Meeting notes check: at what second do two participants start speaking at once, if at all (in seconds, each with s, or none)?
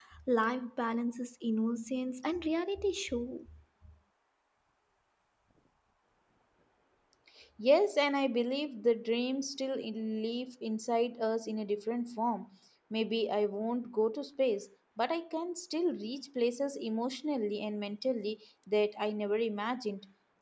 none